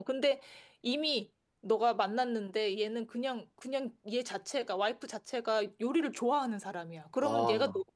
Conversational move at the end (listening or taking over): listening